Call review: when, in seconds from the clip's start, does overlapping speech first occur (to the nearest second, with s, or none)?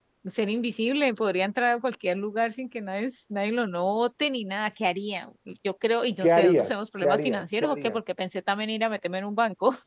6 s